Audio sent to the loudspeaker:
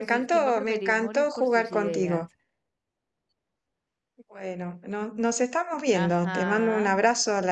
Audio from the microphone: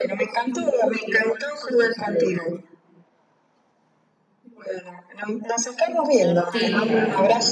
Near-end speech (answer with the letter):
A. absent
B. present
B